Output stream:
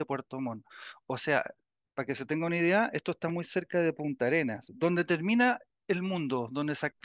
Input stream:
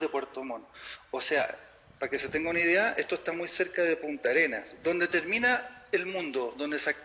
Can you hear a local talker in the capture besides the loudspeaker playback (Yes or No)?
No